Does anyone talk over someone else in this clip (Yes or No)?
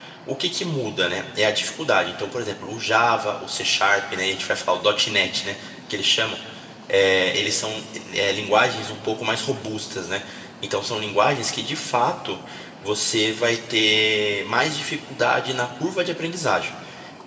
No